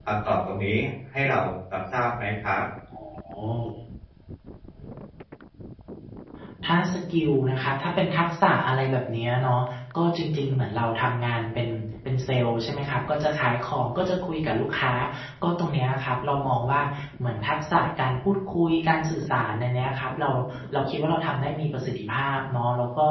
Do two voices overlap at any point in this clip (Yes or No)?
No